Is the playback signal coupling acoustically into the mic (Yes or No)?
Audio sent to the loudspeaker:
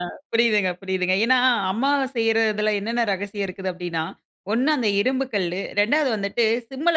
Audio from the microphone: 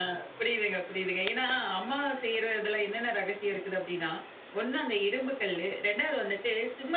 Yes